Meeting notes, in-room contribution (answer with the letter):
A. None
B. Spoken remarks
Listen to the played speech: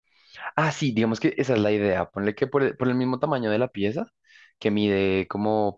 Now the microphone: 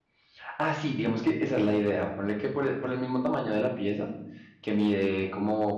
A